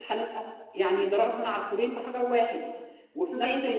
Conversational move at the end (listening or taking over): taking over